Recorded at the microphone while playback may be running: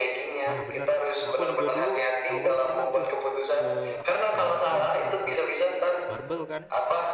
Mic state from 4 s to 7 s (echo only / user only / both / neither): both